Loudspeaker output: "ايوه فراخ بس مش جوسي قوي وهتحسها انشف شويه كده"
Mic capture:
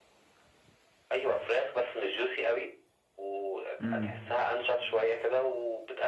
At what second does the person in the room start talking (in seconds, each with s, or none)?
3.8 s